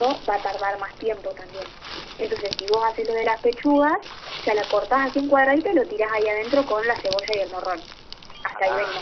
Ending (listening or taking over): taking over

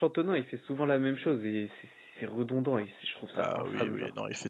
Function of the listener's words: taking over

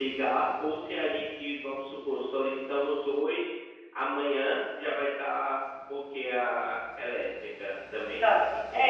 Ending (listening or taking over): taking over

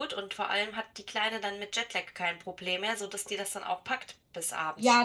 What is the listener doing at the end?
taking over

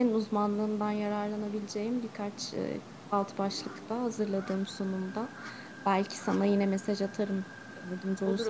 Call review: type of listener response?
taking over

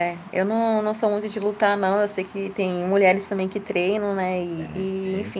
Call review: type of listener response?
listening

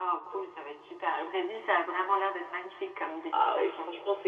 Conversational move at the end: taking over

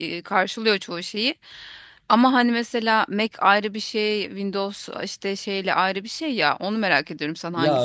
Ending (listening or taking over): taking over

